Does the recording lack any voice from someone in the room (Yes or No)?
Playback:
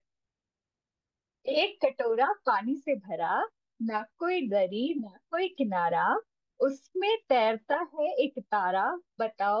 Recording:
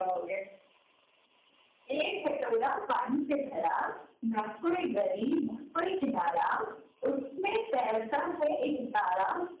Yes